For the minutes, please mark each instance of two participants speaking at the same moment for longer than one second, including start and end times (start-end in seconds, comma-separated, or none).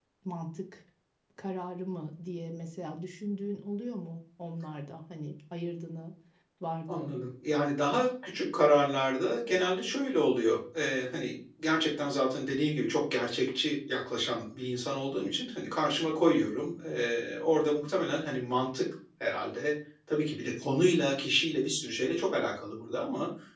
none